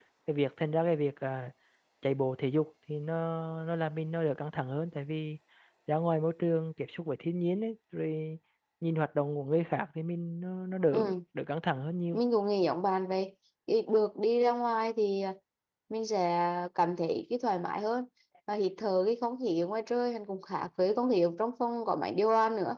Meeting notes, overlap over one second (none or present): none